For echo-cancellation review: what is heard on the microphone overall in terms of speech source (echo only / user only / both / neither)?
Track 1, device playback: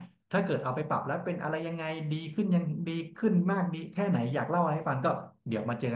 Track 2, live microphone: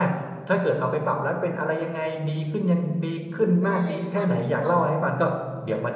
both